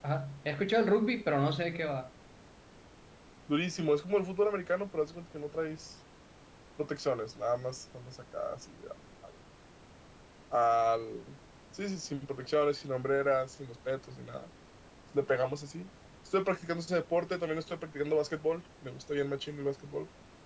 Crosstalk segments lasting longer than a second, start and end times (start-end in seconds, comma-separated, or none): none